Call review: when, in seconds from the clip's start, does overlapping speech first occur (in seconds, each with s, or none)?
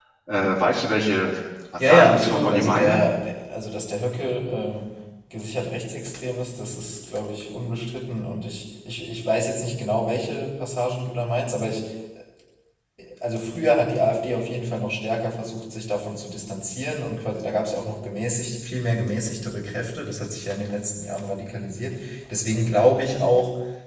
1.8 s